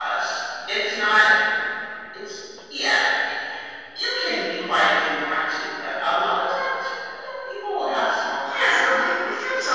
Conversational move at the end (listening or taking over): taking over